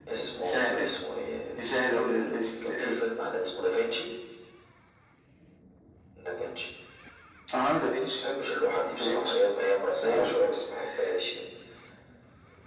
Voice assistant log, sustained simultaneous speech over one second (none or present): present